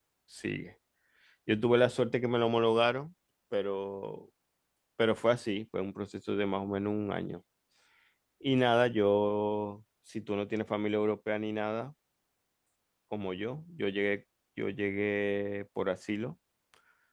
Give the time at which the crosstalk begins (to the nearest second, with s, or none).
none